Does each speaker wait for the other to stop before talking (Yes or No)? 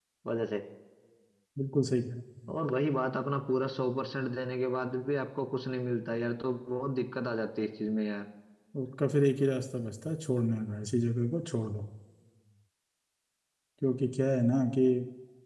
Yes